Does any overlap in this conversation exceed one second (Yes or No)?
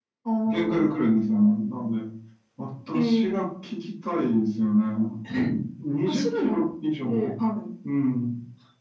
No